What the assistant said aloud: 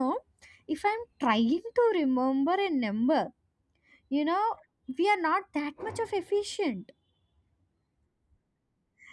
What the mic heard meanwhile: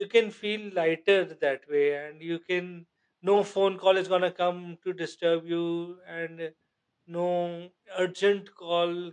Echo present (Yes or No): No